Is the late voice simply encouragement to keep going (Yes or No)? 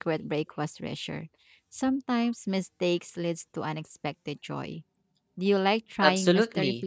No